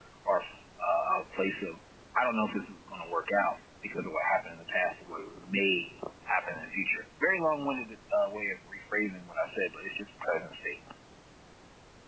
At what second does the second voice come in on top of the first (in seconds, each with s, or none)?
none